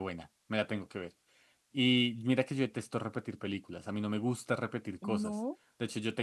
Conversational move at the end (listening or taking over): listening